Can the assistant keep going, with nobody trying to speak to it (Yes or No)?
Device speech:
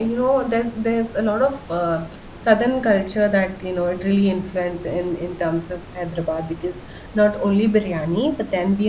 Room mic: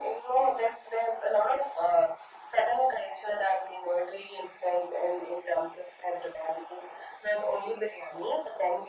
Yes